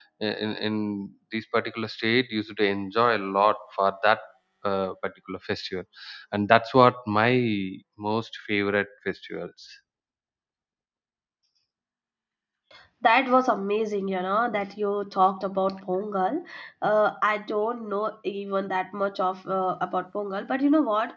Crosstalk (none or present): none